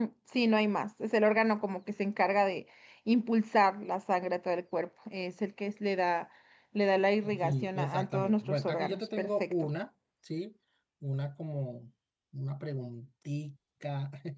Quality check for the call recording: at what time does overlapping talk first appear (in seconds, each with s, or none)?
7.4 s